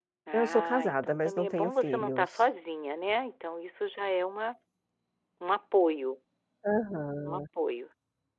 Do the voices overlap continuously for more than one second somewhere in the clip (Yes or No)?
Yes